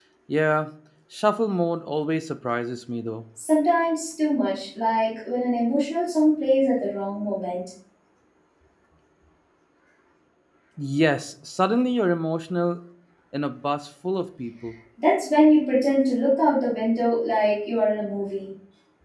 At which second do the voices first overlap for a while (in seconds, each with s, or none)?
none